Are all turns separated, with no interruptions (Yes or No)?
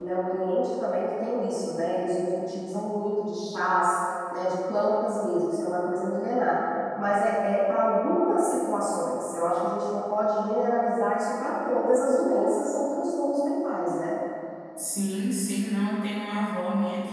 Yes